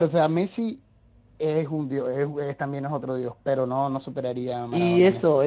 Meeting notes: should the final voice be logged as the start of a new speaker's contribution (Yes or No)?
Yes